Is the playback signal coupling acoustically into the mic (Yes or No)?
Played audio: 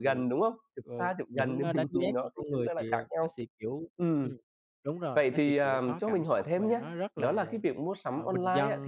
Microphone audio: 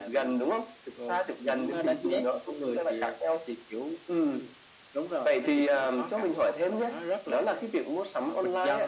Yes